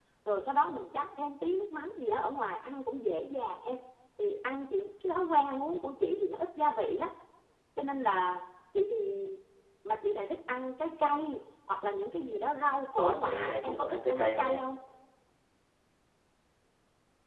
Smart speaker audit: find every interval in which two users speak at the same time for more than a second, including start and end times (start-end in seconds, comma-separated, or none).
13.0-14.6